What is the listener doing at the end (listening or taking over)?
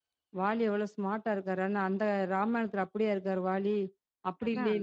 listening